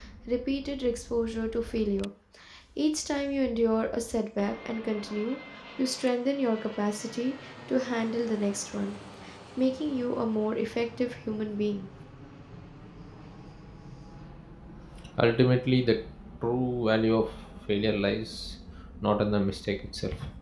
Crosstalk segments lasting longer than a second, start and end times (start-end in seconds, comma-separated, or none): none